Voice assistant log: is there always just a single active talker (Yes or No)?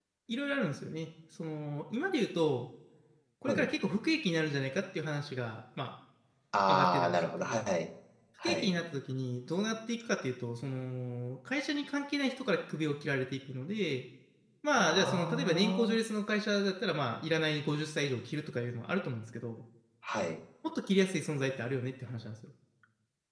No